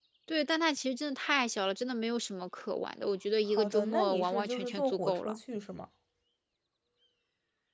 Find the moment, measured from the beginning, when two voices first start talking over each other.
3.5 s

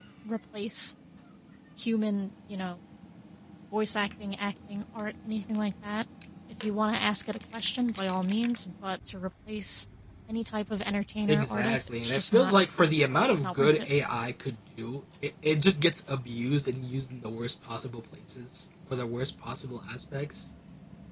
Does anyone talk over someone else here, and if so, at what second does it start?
11.3 s

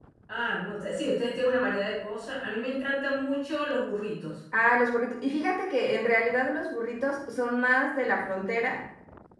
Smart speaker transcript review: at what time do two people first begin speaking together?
none

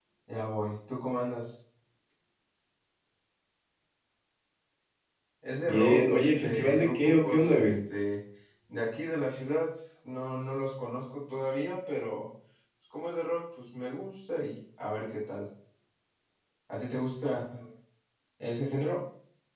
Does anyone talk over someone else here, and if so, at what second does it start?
5.7 s

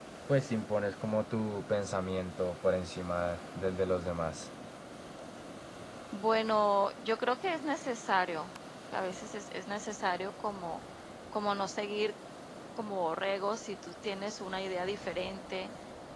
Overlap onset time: none

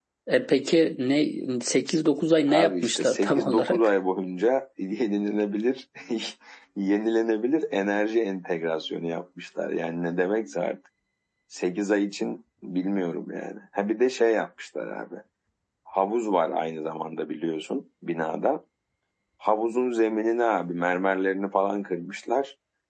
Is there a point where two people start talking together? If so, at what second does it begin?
2.5 s

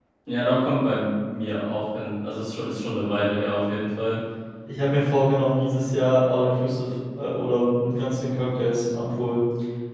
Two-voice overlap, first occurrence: none

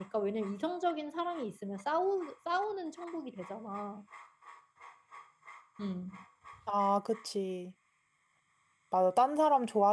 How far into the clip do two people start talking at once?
none

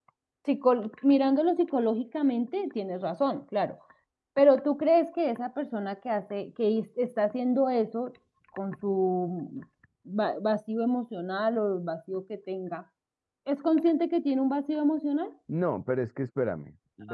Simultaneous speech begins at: none

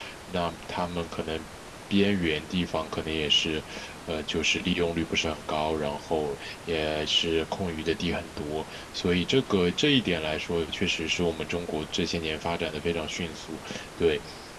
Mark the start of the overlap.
none

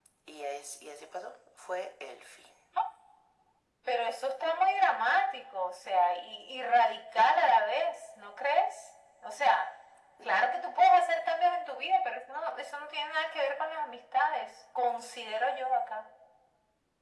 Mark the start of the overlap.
none

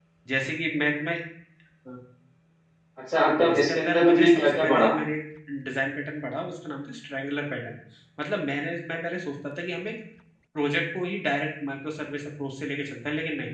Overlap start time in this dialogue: 3.5 s

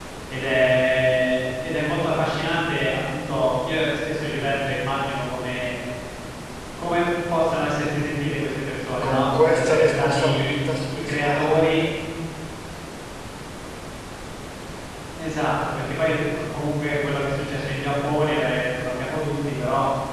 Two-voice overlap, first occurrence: 9.0 s

